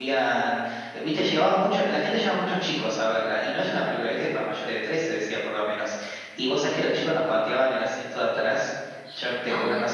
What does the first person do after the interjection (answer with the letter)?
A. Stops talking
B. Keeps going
B